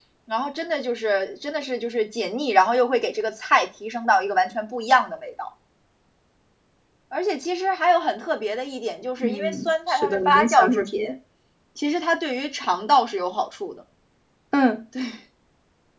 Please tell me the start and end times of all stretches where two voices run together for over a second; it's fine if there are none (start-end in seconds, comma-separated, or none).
9.2-11.0